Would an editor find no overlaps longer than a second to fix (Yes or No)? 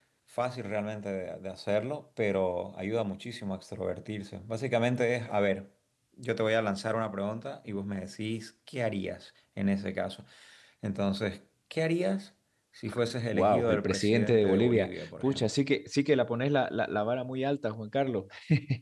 No